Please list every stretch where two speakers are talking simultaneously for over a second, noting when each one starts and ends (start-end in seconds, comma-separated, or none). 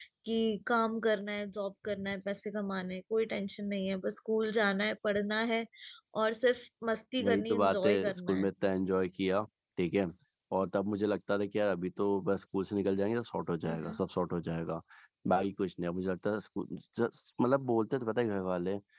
7.2-8.5